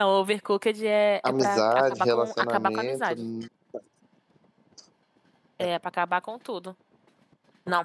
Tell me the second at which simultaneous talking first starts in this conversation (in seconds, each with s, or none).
1.2 s